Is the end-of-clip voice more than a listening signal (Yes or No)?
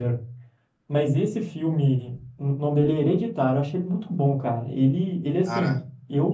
No